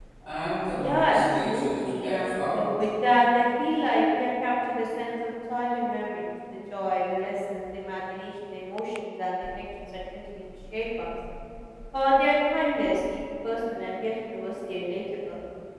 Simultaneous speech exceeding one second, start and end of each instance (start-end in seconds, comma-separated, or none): 0.7-2.7